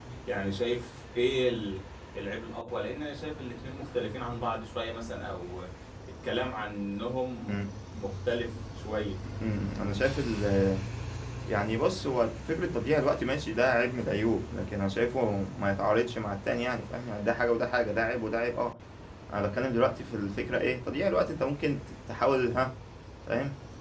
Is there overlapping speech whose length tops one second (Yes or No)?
No